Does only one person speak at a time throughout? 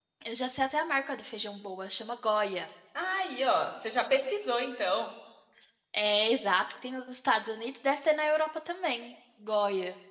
Yes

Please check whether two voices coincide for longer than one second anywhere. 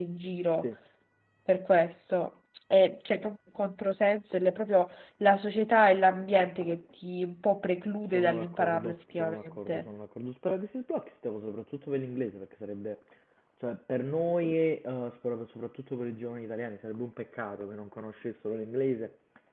Yes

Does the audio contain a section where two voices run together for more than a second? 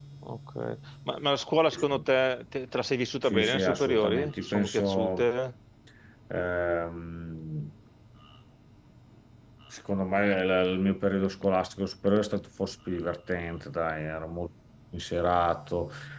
Yes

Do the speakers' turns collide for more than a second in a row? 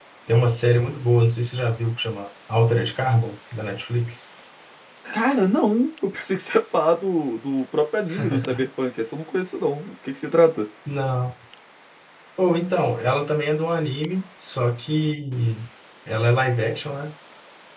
No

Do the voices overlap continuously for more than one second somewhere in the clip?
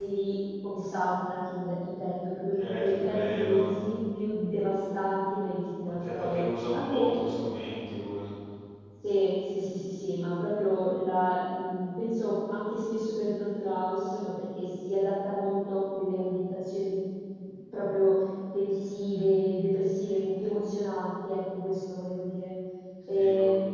Yes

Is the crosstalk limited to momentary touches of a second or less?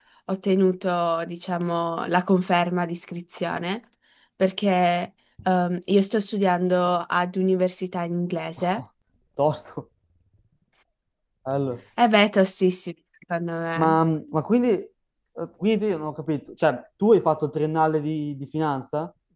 Yes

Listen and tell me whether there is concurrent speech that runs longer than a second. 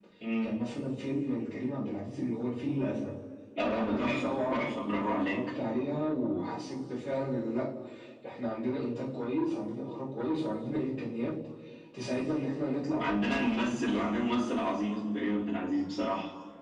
Yes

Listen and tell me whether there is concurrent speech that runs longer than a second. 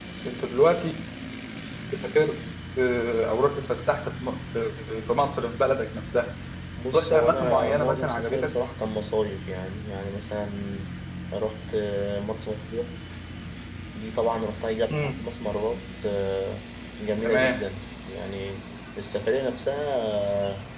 Yes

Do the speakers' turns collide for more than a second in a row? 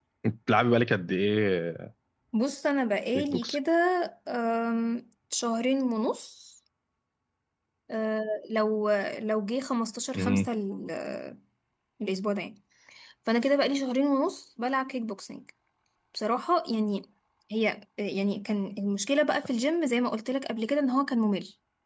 No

